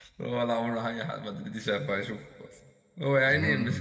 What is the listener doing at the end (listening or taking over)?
listening